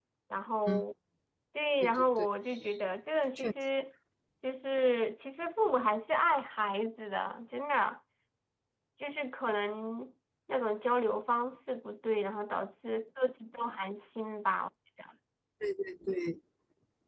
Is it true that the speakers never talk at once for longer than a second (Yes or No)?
Yes